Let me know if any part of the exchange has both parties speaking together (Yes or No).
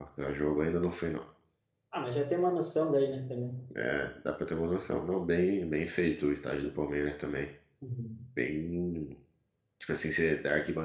No